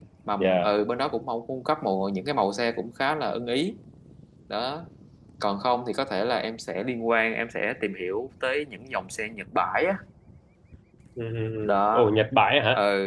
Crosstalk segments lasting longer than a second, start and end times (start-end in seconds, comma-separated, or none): none